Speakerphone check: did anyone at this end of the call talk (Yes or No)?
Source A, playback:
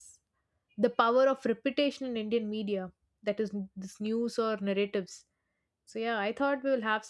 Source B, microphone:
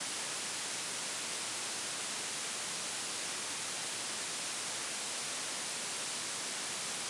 No